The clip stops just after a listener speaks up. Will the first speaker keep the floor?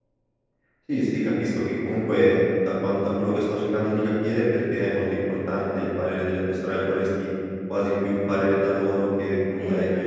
Yes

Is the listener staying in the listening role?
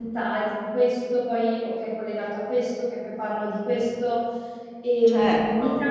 No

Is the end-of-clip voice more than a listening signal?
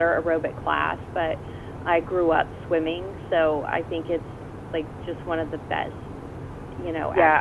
Yes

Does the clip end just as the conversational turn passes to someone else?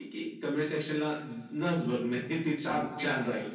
Yes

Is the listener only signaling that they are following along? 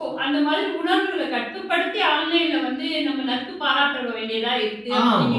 No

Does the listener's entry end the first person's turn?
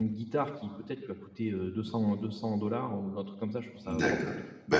Yes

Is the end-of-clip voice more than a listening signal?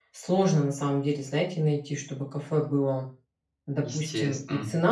No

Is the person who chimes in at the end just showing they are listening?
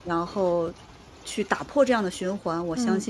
Yes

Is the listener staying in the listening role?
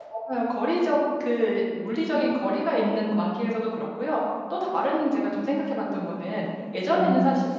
Yes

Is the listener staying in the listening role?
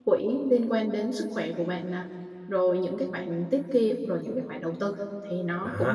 No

